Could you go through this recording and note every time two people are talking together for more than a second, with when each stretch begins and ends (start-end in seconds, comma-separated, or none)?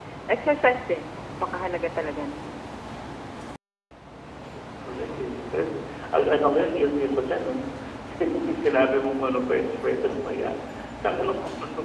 none